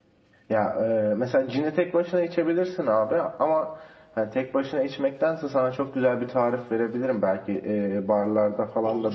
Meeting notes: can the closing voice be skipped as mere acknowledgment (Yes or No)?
Yes